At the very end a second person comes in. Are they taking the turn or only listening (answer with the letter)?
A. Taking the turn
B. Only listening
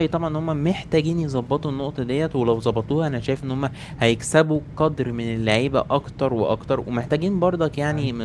B